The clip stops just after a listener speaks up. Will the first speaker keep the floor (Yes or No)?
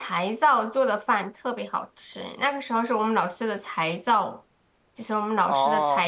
Yes